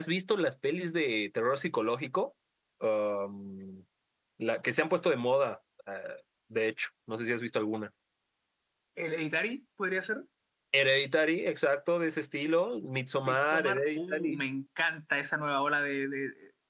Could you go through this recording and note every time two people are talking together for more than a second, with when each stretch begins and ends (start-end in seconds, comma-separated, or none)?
13.2-14.4